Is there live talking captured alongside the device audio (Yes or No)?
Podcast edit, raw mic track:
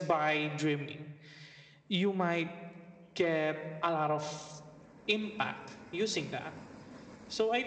No